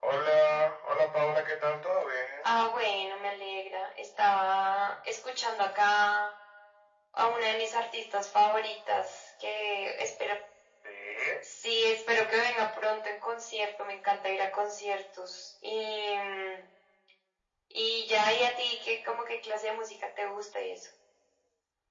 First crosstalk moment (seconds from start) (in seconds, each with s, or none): none